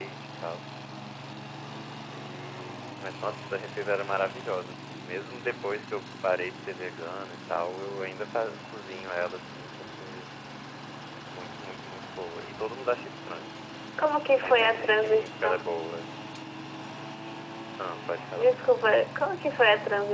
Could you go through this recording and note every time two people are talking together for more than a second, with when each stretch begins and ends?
14.2-15.6

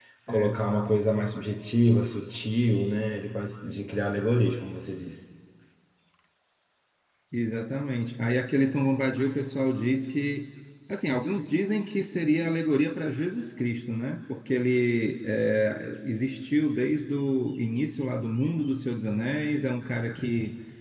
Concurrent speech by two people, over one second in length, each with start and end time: none

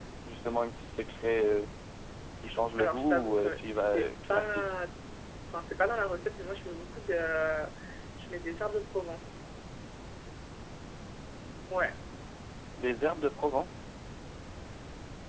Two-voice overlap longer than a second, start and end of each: 2.8-4.6

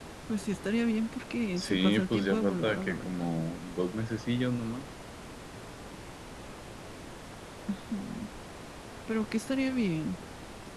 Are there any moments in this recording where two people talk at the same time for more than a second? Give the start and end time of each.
1.6-3.2

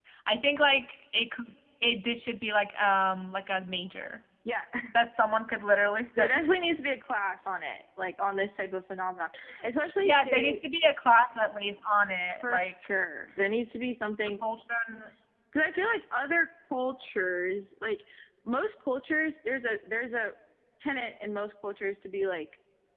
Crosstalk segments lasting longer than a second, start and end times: none

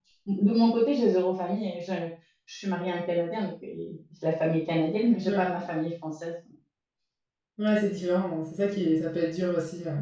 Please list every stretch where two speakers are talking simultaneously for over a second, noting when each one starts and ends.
none

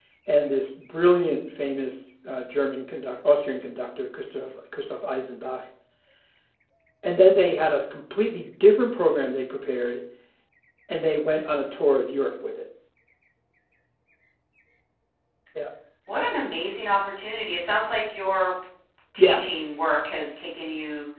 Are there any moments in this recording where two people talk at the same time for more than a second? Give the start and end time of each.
none

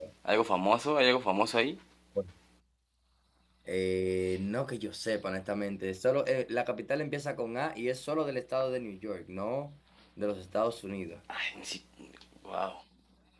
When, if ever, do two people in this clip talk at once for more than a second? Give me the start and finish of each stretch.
none

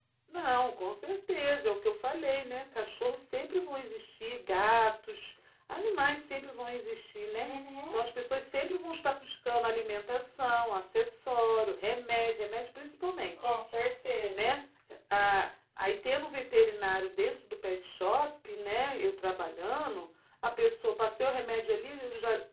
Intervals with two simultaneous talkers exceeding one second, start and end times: none

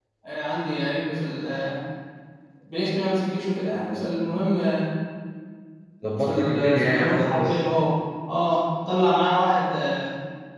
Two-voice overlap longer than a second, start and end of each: 6.2-7.6

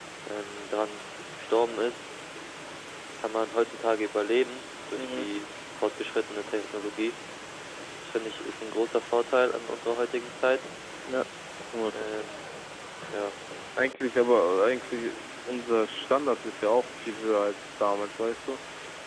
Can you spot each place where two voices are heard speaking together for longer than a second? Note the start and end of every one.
none

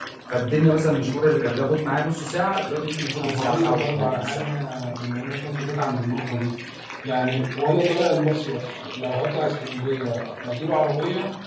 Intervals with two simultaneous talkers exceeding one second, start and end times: 3.2-4.4

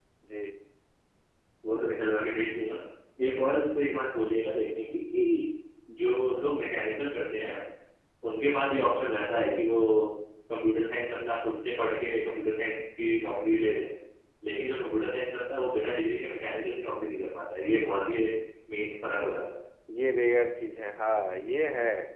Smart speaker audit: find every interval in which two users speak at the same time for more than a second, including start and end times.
none

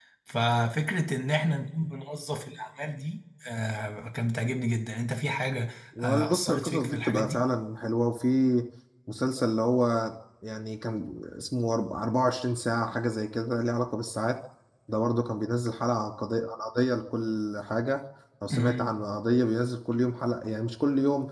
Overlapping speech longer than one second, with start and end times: 6.0-7.4

